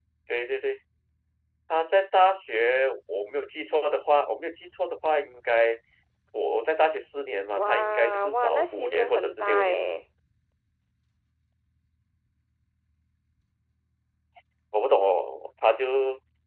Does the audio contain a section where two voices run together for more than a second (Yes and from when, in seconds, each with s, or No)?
Yes, from 7.5 s